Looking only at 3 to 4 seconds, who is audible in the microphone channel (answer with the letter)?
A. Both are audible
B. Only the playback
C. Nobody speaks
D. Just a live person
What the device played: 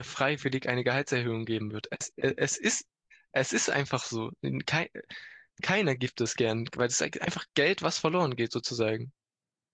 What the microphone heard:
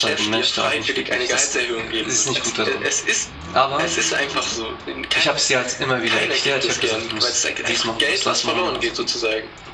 A